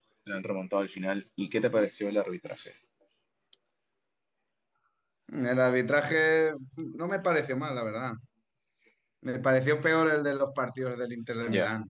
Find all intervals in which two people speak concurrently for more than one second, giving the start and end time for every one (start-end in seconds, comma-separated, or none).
none